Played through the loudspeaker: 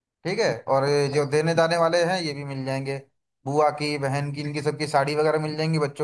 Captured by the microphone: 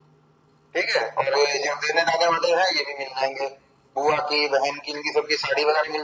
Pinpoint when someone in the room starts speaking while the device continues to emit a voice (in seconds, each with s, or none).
none